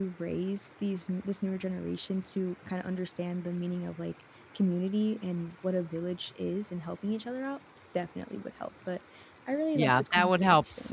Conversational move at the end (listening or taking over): taking over